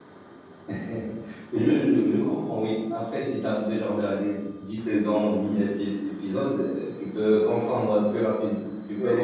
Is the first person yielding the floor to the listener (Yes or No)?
Yes